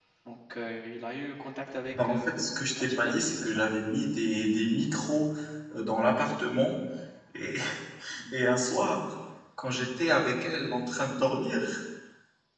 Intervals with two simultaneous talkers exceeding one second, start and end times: 1.9-3.6

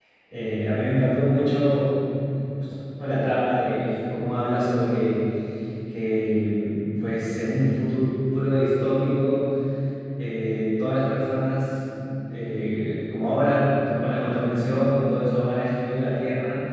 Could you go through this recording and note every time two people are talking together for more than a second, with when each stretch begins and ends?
none

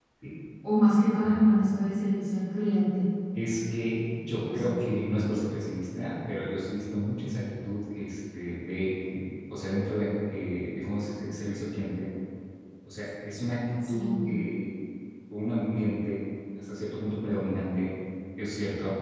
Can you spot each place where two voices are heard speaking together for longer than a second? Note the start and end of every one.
none

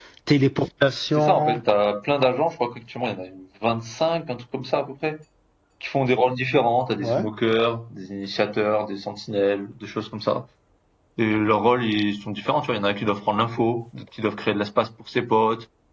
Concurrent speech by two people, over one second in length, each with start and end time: none

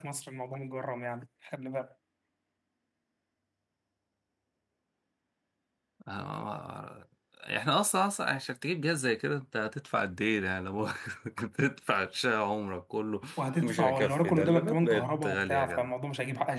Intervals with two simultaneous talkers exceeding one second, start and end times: 13.6-15.9

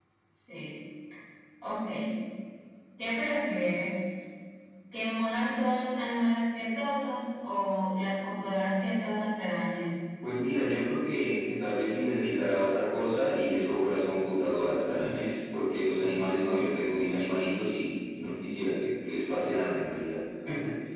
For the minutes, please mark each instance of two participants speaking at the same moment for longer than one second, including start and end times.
none

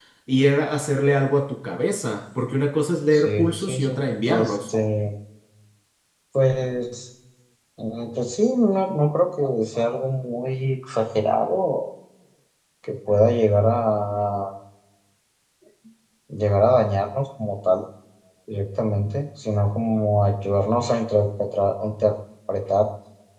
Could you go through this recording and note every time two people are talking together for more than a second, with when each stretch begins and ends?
3.1-4.6

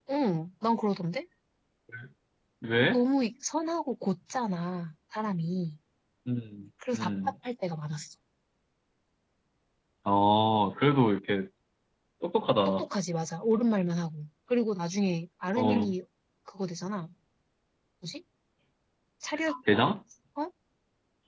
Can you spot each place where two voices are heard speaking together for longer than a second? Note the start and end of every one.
none

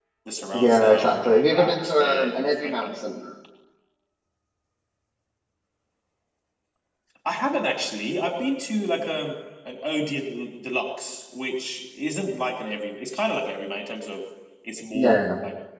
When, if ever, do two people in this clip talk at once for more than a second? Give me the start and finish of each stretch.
0.5-3.0

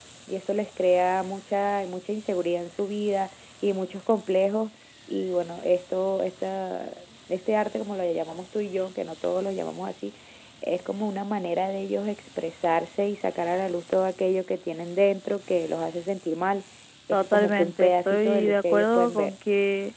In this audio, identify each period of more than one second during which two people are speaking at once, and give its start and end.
17.1-19.3

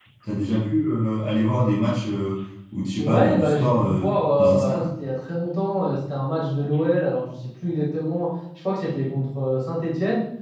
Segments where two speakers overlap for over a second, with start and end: 3.0-4.9

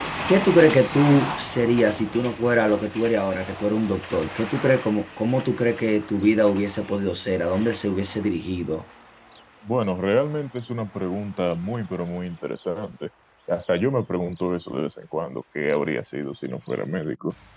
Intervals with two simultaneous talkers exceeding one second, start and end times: none

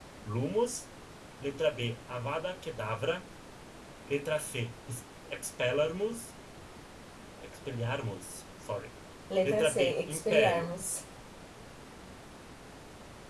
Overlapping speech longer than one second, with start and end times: 9.4-10.7

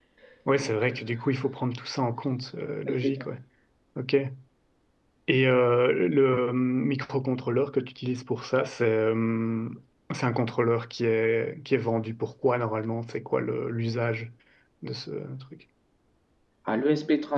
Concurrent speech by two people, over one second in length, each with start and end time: none

